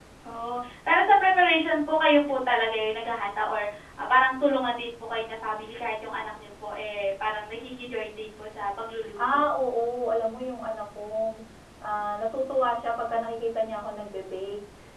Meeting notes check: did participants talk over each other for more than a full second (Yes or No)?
No